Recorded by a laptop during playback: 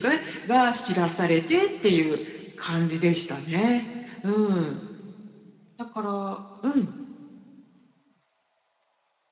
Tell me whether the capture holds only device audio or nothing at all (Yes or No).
Yes